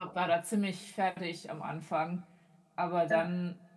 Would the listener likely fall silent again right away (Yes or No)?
Yes